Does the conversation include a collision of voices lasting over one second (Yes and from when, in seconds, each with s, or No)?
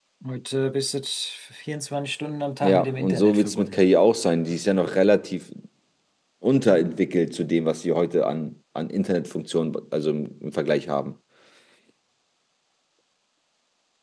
Yes, from 2.6 s